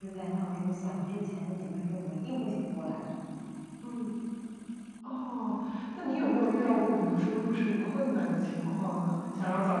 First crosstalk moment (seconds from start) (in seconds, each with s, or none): none